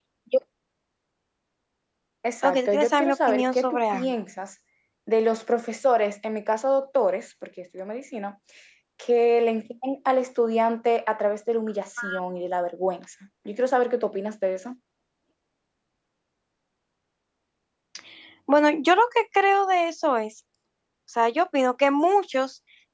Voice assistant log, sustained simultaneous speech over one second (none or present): present